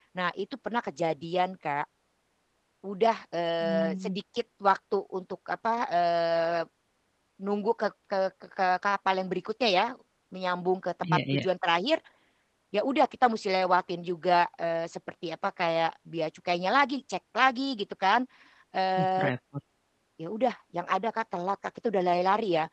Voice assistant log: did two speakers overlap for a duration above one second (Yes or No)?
No